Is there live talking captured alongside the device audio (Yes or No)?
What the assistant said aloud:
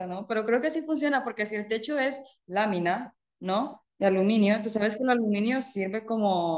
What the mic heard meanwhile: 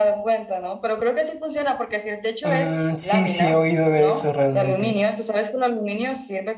Yes